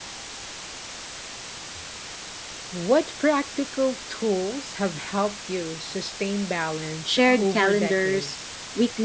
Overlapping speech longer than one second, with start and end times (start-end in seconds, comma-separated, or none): 7.0-8.4